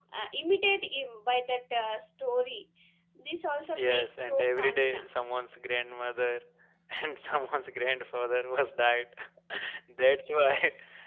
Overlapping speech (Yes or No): Yes